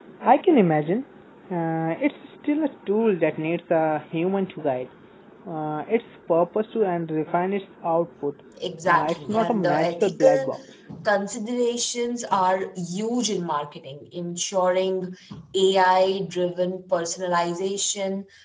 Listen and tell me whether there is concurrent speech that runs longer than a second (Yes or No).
Yes